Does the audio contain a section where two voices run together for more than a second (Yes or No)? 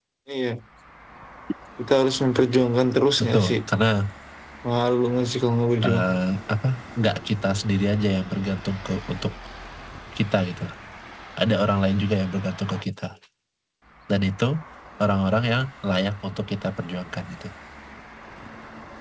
No